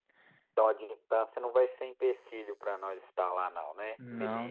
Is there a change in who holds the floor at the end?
Yes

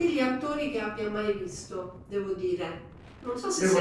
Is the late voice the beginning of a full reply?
Yes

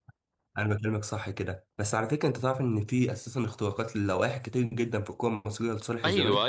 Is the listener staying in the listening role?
No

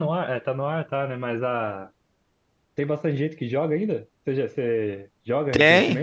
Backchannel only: No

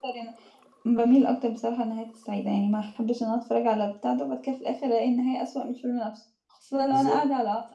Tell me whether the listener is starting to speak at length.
No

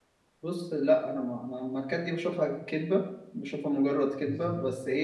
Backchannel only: Yes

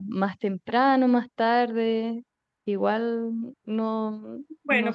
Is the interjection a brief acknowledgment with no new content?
No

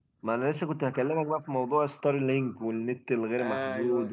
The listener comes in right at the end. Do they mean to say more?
No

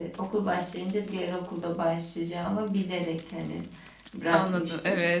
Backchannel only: No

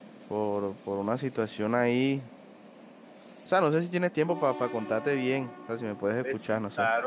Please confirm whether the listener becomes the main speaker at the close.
Yes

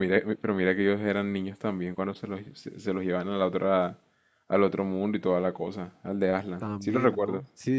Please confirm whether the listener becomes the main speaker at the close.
Yes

